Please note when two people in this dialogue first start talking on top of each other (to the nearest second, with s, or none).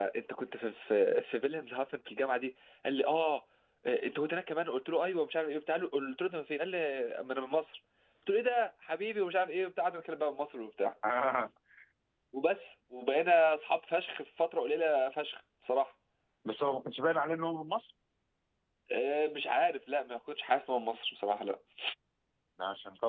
none